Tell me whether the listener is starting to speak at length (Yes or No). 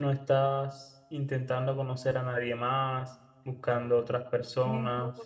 Yes